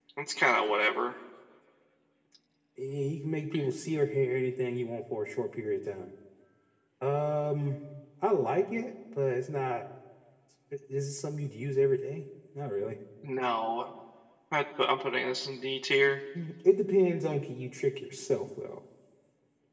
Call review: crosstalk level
none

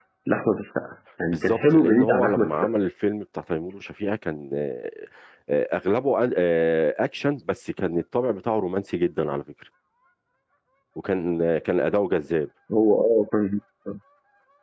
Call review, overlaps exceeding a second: present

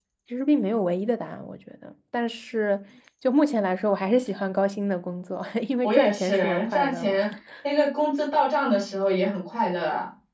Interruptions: present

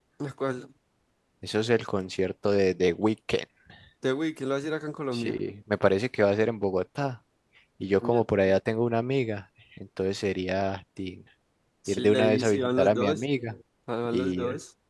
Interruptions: present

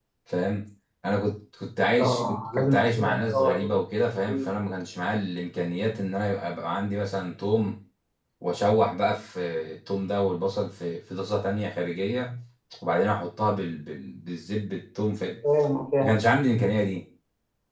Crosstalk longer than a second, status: present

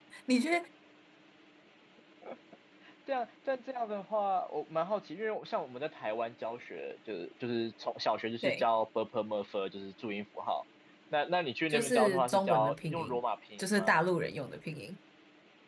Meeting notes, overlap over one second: present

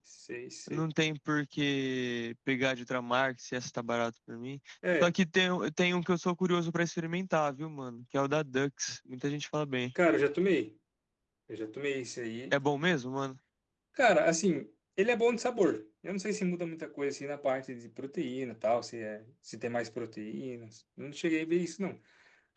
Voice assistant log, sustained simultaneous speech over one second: none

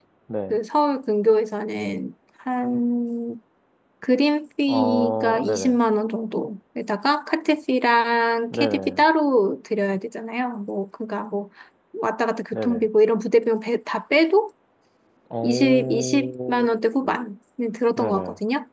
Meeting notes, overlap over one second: present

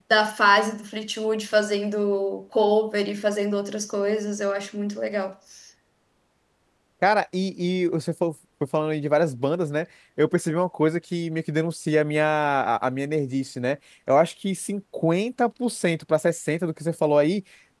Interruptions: none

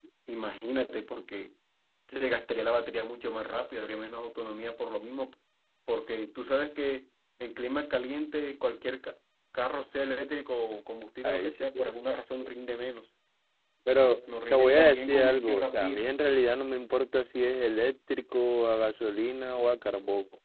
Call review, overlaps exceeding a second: present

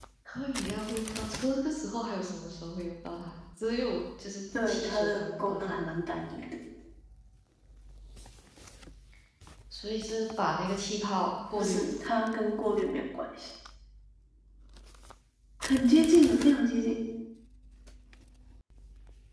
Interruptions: present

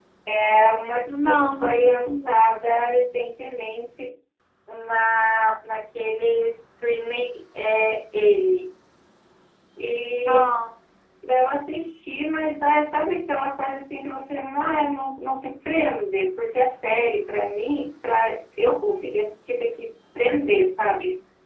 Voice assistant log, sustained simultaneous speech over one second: present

